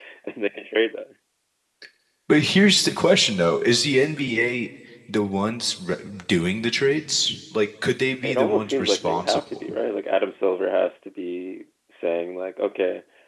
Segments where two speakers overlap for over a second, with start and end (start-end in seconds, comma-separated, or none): 8.2-9.6